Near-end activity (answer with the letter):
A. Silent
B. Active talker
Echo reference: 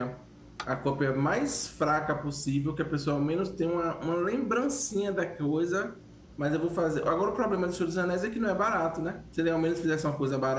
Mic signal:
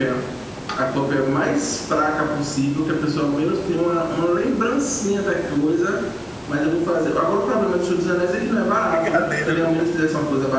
B